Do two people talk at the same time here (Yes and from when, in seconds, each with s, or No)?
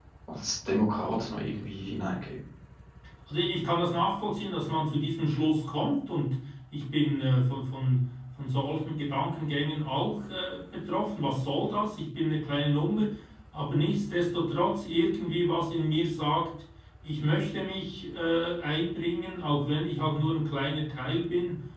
No